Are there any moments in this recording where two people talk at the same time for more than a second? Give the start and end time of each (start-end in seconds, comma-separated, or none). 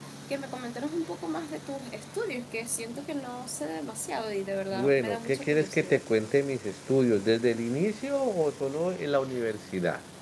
4.7-6.0